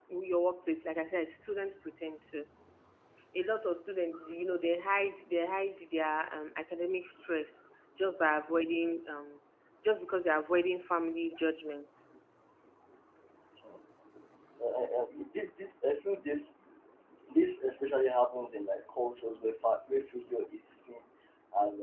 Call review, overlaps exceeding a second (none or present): none